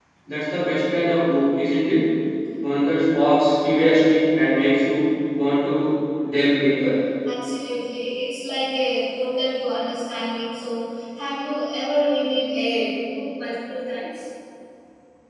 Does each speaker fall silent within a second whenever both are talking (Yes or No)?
Yes